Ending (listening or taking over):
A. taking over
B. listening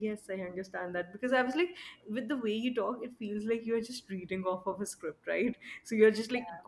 B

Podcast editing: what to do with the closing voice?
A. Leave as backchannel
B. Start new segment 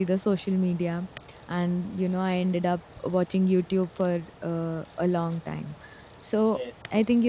A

